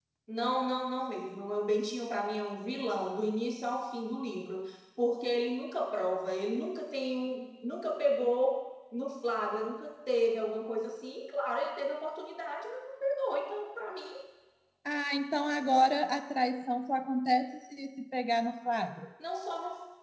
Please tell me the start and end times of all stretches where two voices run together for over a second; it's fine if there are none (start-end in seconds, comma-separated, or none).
none